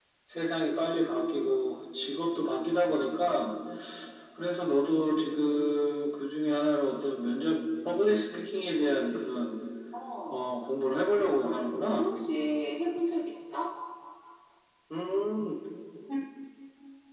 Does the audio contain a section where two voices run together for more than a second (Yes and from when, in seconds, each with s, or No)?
No